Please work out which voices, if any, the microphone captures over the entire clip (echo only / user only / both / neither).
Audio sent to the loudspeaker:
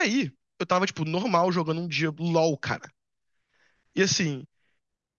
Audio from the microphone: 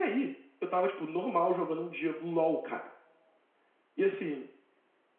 echo only